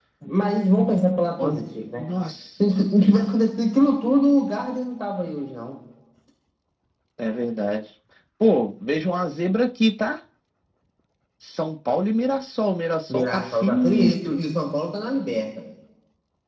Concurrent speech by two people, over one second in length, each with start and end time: 13.1-14.3

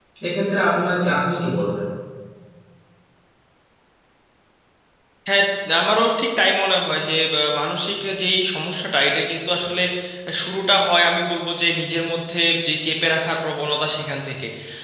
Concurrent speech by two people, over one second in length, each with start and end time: none

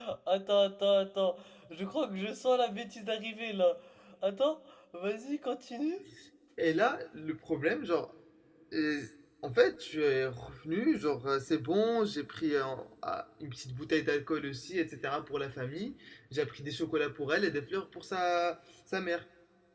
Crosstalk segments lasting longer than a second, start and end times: none

